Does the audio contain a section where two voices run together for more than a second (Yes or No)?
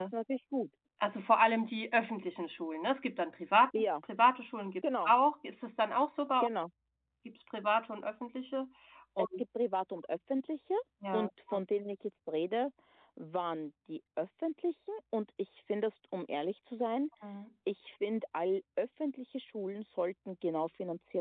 No